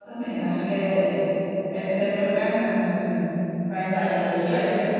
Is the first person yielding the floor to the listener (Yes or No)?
No